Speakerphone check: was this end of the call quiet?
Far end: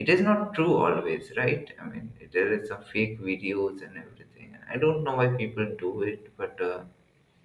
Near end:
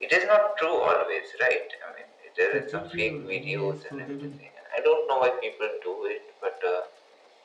No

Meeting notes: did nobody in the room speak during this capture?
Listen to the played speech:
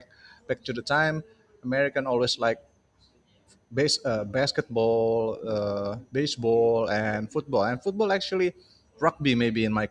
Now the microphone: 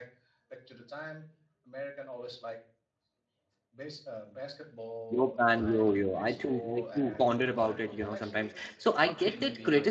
No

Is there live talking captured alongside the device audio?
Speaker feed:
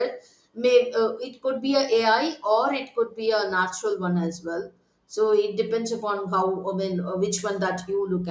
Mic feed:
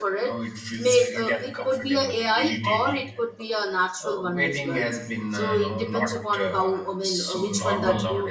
Yes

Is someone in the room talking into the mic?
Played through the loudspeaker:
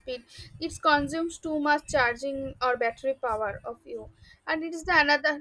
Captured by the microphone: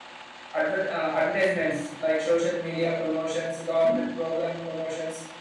Yes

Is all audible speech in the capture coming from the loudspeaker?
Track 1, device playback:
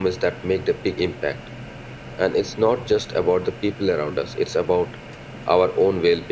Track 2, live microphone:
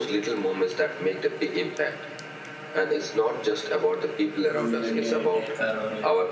No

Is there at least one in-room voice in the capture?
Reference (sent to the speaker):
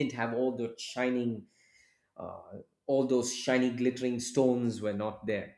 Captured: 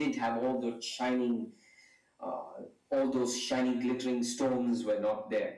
No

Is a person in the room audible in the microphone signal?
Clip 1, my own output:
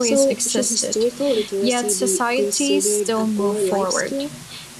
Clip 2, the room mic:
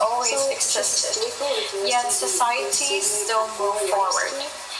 No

